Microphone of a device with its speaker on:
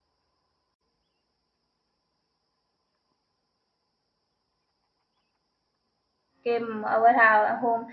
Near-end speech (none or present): present